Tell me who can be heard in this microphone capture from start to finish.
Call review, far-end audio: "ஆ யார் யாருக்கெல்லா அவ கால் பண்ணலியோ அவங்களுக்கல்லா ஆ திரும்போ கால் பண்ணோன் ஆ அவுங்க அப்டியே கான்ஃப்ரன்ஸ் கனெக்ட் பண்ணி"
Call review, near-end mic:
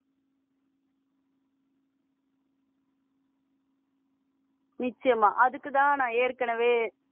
user only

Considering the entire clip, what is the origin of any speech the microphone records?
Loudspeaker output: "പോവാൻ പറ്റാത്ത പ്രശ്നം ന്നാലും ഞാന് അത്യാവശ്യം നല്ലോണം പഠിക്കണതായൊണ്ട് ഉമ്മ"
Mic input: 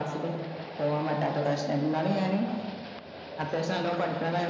echo only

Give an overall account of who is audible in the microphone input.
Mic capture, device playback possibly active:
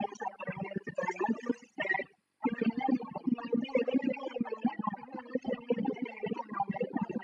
echo only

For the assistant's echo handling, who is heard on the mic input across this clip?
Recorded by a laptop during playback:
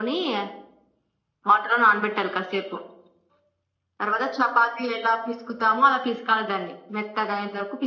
echo only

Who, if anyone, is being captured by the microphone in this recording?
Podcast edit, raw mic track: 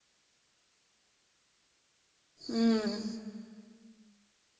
user only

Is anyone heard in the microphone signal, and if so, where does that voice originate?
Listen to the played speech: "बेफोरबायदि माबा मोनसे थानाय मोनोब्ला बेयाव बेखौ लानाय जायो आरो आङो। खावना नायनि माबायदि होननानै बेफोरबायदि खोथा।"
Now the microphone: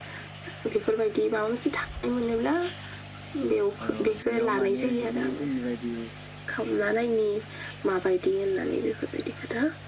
both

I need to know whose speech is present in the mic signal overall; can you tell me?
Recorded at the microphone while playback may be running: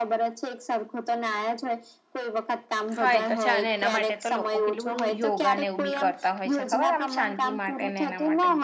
both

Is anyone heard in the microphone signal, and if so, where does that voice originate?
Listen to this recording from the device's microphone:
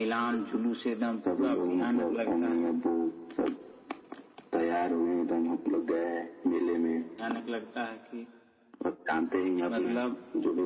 echo only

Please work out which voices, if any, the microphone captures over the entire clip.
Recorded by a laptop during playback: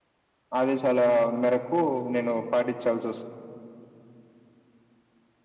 user only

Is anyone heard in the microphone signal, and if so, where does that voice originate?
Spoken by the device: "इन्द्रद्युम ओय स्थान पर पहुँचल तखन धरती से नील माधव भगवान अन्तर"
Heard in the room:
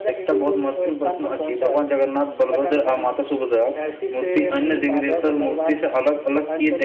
both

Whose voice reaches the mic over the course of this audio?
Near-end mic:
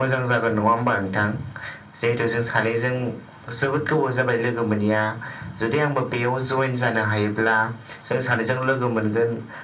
echo only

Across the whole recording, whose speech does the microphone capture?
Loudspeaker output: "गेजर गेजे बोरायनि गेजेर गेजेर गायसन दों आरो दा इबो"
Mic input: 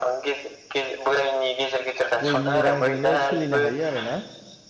both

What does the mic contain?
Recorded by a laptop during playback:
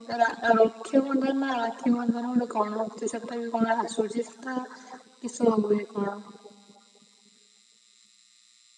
echo only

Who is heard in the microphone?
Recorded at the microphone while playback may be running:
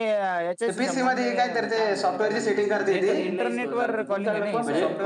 both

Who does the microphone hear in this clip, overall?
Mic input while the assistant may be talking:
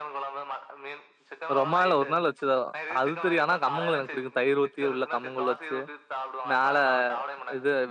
both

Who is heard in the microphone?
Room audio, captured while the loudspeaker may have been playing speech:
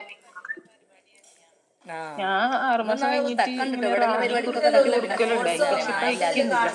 both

